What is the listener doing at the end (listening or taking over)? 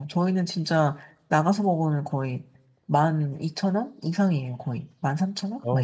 taking over